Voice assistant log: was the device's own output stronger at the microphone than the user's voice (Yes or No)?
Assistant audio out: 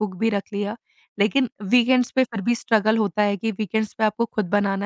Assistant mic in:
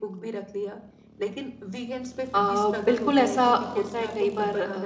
No